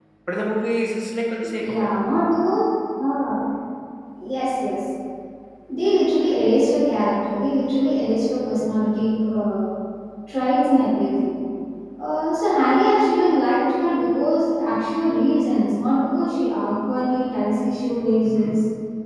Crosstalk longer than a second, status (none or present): none